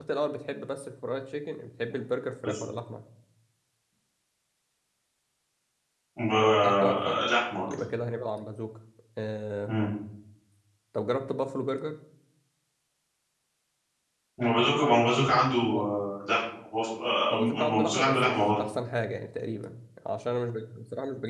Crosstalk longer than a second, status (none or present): present